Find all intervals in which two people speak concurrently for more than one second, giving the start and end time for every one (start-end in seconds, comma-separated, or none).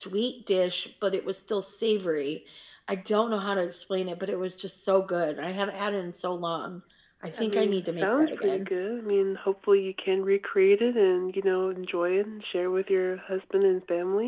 7.4-8.7